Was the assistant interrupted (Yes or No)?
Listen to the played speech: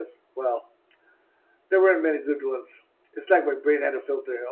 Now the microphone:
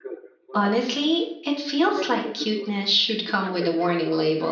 Yes